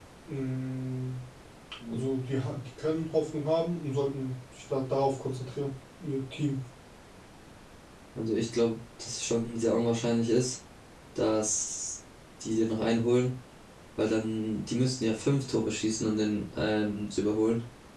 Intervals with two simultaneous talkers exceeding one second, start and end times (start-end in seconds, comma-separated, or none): none